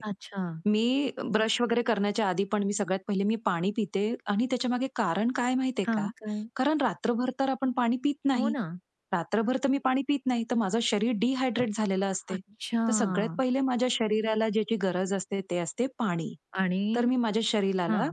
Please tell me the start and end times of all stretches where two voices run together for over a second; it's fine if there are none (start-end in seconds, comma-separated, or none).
none